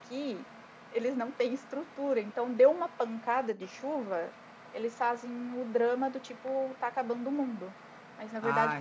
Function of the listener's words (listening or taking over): listening